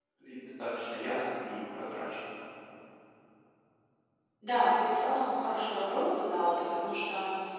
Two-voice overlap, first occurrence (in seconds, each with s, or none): none